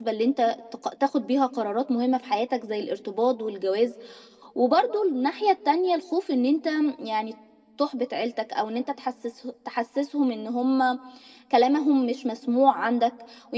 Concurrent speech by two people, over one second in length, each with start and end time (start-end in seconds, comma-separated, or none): none